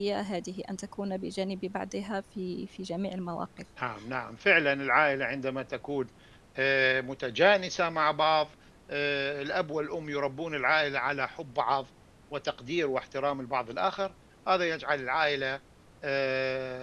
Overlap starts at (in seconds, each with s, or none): none